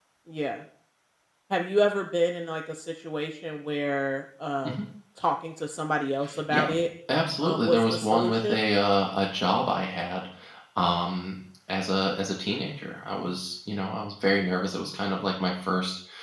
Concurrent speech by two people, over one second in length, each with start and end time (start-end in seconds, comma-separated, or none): 7.4-8.6